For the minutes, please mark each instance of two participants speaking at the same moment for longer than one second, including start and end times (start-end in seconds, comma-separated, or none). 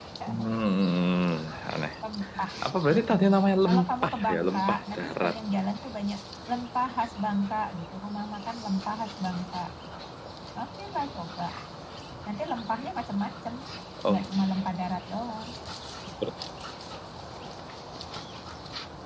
3.7-5.6